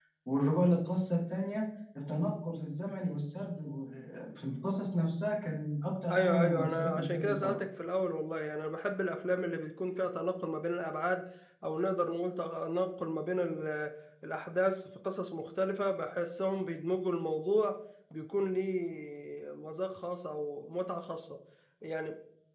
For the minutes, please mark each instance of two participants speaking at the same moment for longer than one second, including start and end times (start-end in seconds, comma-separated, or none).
6.1-7.3